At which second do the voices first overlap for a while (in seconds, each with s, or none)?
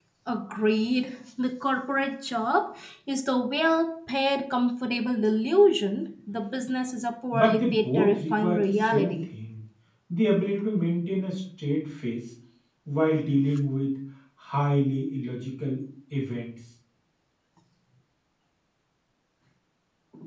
7.3 s